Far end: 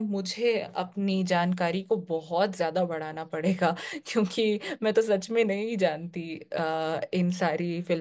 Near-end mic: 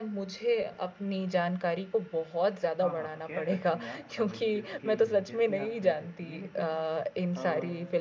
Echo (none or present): present